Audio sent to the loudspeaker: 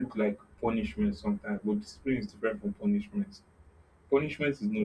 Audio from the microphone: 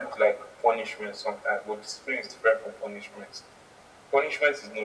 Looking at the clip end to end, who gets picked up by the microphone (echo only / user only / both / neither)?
echo only